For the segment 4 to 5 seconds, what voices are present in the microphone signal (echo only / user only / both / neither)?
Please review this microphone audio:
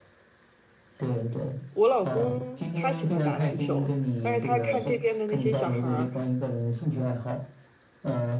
both